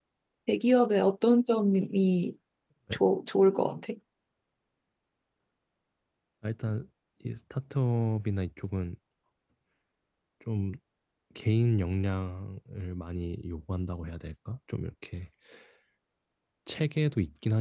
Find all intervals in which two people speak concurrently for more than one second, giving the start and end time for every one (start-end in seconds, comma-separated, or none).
none